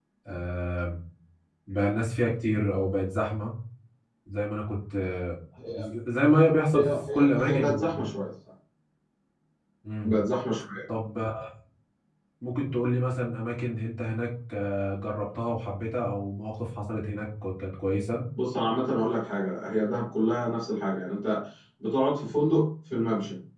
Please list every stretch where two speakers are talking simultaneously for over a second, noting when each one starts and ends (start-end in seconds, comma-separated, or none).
6.7-7.9